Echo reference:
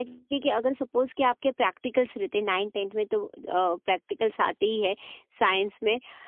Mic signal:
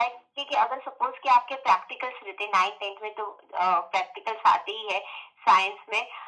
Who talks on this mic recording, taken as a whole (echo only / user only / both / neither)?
echo only